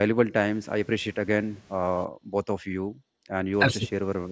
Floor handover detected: No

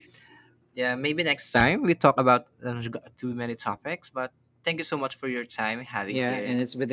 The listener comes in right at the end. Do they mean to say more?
Yes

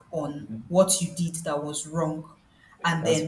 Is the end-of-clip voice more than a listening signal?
No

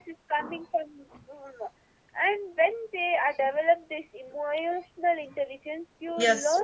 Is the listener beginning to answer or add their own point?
No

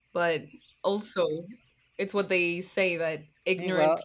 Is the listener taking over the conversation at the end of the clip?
No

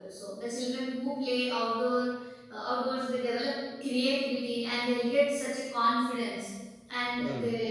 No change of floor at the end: Yes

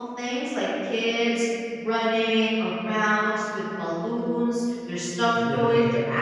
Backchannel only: Yes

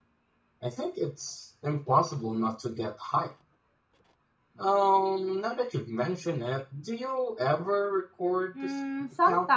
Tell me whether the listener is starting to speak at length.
Yes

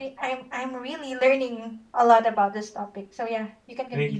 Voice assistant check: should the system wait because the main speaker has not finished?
No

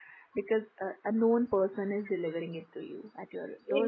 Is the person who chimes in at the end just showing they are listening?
No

